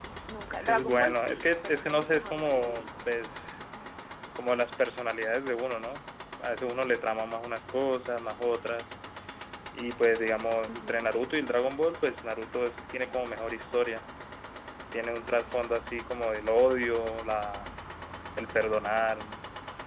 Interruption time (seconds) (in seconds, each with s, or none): 0.6 s